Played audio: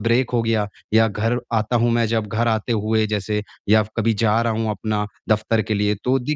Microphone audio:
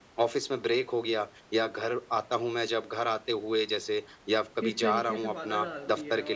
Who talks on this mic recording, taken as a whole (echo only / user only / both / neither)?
both